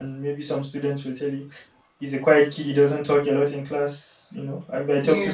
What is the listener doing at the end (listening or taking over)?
listening